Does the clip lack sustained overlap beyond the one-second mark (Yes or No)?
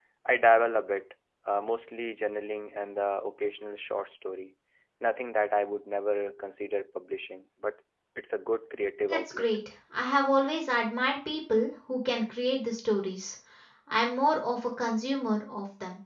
Yes